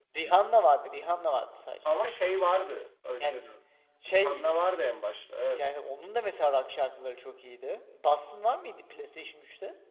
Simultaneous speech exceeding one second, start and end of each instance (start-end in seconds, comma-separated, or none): none